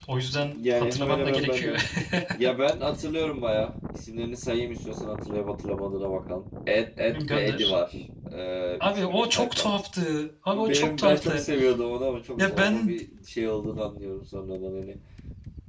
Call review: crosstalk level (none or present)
present